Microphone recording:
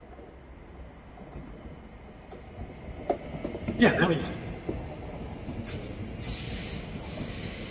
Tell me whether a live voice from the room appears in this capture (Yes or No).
Yes